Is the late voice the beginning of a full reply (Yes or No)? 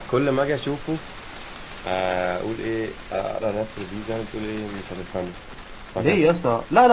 Yes